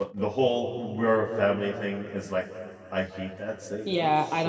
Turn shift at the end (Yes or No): Yes